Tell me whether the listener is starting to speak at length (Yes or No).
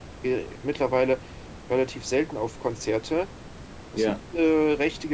No